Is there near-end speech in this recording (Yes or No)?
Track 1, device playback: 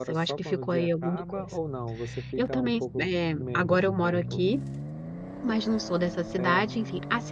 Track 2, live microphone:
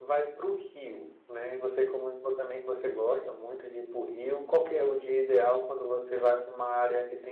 Yes